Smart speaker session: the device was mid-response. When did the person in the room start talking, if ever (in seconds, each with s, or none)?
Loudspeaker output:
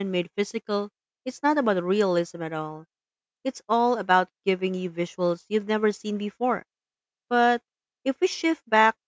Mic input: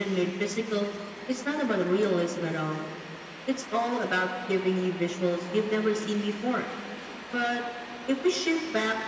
none